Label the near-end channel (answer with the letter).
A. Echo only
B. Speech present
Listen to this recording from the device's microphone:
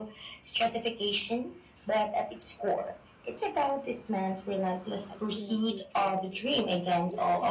B